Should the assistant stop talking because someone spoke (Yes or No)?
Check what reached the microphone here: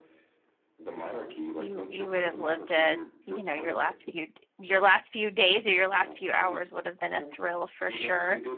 Yes